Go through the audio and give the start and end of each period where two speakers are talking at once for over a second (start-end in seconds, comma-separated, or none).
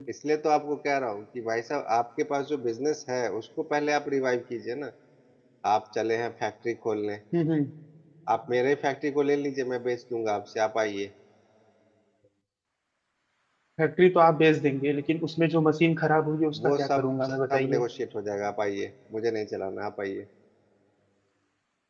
16.6-17.8